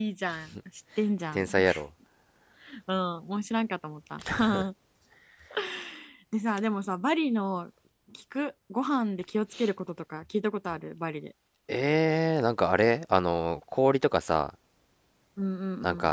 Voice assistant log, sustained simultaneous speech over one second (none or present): none